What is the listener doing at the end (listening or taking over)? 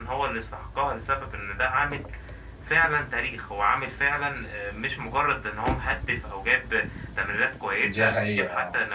taking over